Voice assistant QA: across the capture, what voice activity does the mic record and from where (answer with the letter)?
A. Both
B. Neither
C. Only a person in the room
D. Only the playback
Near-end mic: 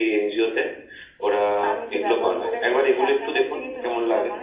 D